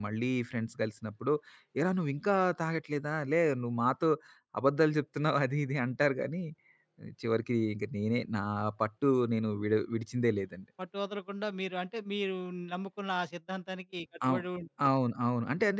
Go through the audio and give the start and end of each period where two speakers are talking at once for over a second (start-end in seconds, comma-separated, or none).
none